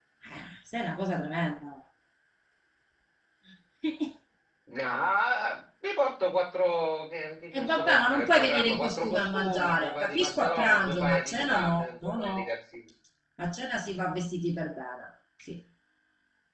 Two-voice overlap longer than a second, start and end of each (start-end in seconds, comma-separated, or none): 7.5-12.5